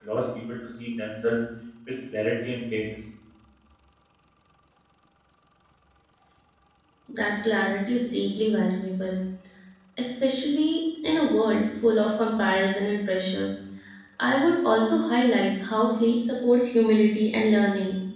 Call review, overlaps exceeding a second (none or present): none